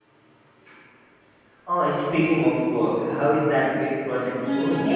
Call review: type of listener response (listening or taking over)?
taking over